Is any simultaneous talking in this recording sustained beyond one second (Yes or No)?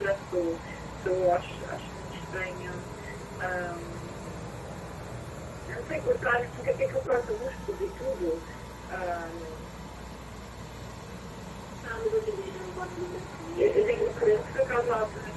Yes